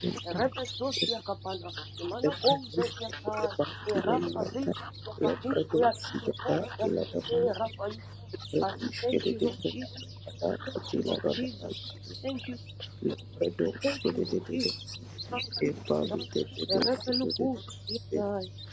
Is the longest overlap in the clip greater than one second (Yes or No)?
Yes